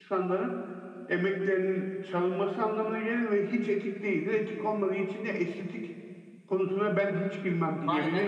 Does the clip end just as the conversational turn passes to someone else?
Yes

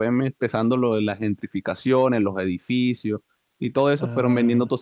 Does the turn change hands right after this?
No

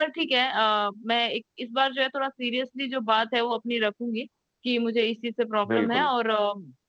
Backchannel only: Yes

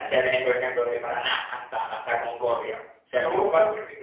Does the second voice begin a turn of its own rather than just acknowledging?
No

